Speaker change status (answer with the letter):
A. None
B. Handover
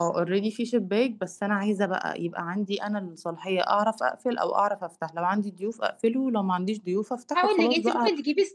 B